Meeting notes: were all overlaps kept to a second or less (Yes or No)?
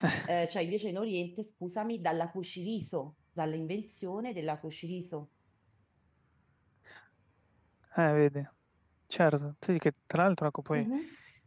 Yes